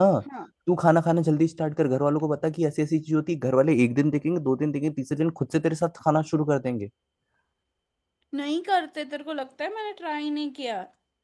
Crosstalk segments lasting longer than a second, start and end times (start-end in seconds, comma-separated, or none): none